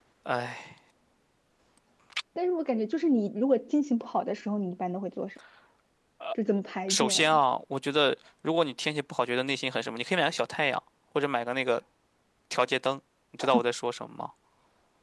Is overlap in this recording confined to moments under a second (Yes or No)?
Yes